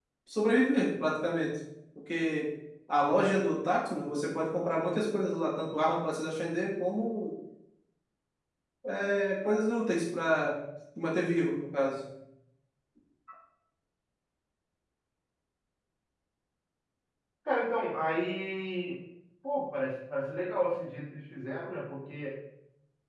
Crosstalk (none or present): none